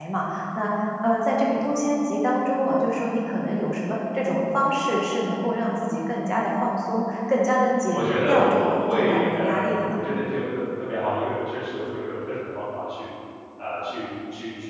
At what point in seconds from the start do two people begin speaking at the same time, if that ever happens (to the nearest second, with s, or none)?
8 s